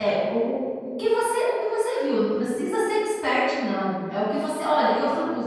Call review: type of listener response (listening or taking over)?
listening